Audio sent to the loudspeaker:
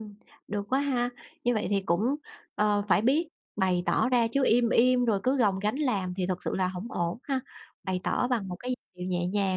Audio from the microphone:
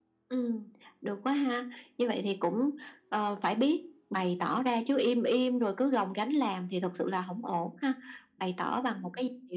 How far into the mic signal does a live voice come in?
none

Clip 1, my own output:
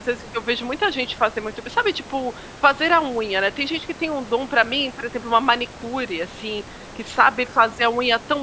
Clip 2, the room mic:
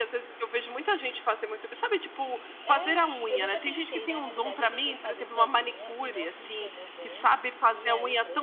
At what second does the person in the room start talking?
2.6 s

